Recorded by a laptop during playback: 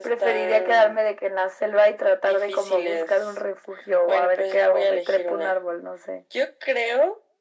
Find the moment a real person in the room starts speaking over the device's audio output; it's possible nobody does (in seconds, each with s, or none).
none